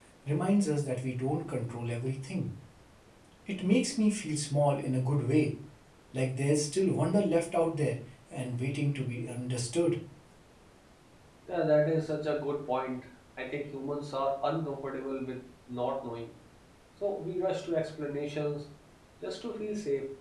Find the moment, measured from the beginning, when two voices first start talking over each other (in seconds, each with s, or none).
none